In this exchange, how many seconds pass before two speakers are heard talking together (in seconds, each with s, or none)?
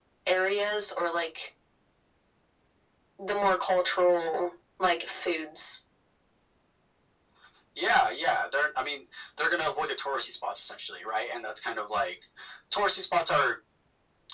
none